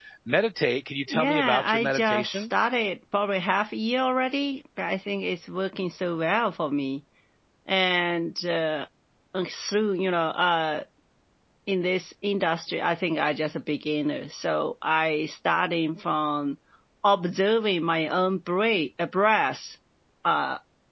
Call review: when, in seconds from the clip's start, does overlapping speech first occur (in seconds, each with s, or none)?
1.1 s